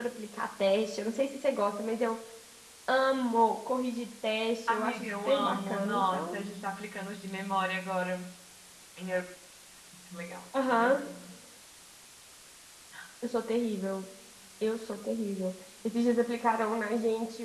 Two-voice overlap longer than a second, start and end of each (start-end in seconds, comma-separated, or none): 4.7-6.4